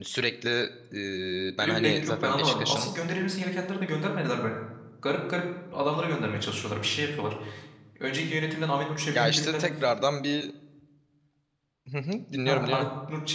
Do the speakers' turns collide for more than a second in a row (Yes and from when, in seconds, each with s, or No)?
Yes, from 1.6 s